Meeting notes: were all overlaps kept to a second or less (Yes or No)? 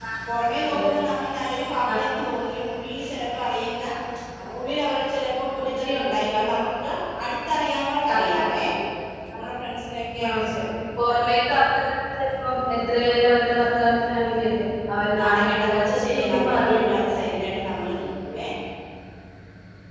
No